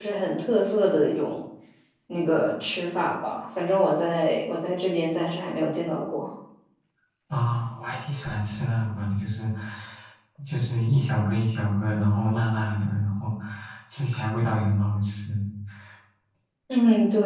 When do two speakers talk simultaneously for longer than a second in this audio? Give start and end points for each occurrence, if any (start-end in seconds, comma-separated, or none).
none